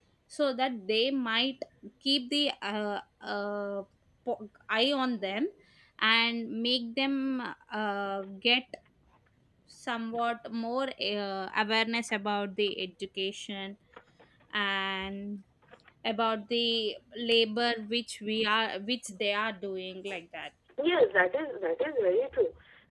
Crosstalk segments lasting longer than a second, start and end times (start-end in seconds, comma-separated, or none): none